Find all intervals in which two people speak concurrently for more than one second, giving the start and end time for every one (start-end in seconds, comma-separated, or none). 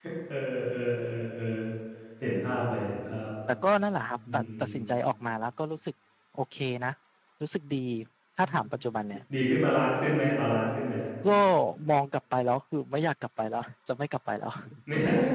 none